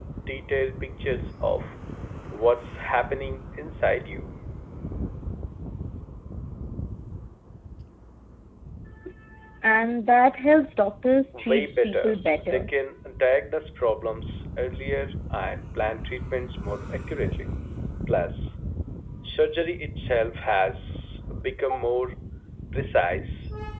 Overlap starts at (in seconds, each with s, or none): 11.3 s